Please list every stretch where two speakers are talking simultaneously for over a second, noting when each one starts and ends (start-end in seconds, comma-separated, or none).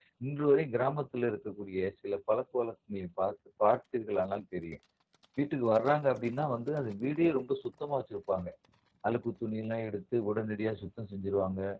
none